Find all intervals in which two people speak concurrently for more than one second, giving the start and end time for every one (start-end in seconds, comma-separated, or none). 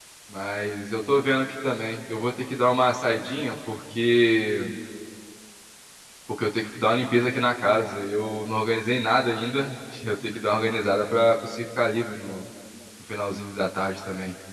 none